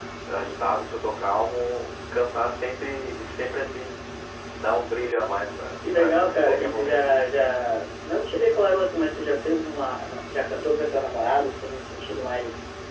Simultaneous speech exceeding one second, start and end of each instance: 6.0-7.5

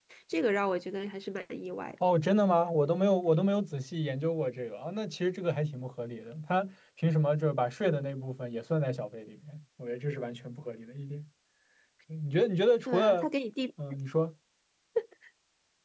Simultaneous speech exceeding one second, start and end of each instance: none

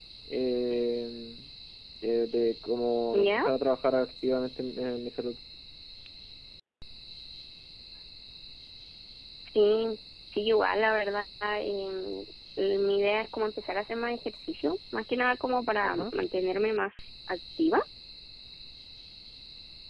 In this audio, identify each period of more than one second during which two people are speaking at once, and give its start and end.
none

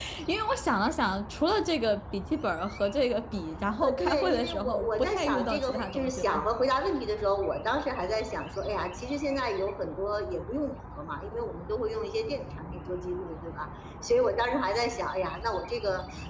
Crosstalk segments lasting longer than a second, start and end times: 3.8-6.4

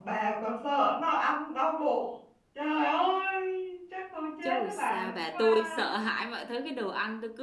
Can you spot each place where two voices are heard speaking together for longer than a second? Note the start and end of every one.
4.5-5.8

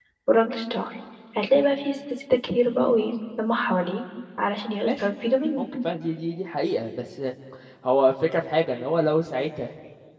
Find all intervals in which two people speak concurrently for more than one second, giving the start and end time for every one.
none

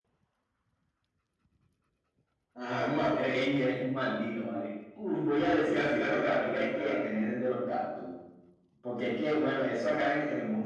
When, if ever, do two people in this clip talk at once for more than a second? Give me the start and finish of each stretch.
5.6-7.0

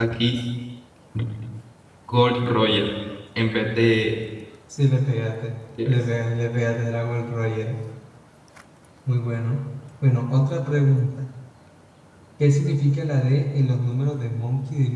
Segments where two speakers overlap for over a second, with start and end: none

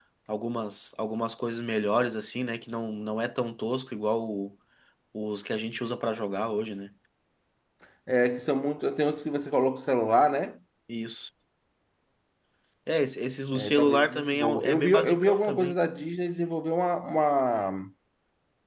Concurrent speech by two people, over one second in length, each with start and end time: 13.6-15.7

